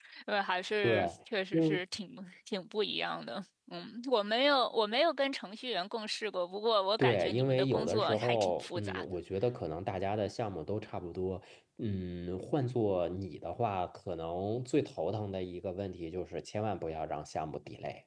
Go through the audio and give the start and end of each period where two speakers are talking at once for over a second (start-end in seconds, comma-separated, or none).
7.0-9.0